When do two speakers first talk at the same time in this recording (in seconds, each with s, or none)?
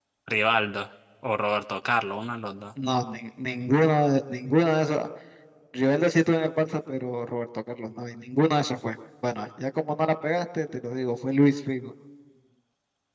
none